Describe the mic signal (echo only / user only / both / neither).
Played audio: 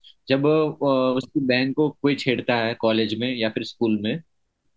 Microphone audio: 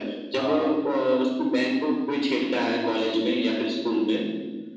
both